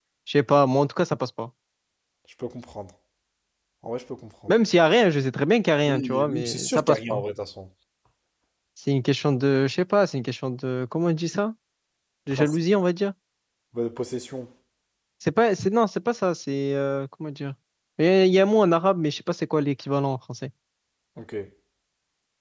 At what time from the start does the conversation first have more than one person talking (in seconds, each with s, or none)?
5.9 s